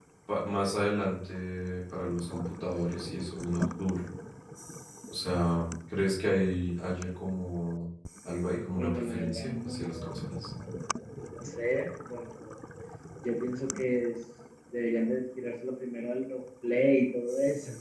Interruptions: present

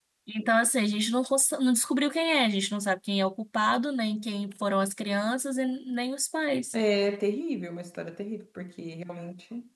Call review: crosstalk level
none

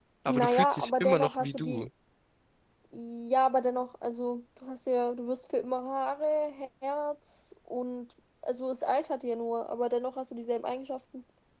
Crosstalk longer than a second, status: present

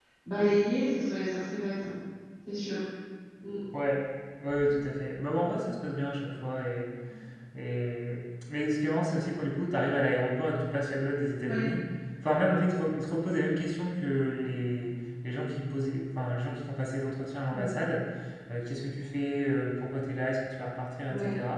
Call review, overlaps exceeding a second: none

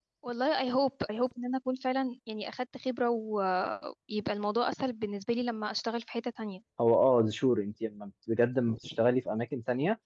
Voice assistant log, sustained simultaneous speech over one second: none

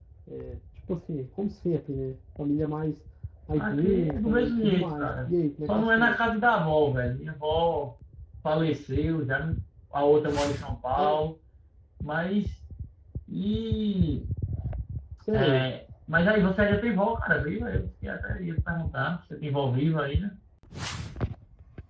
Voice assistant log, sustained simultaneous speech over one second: present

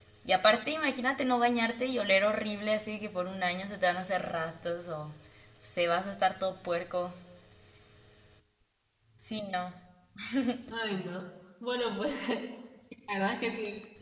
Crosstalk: none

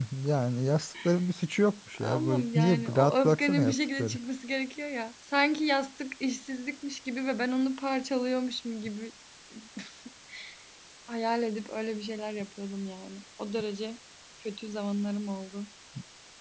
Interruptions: present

